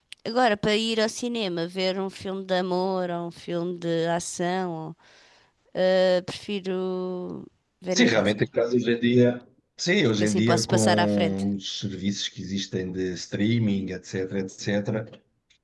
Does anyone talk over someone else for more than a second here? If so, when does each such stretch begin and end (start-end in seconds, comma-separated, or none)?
10.2-11.4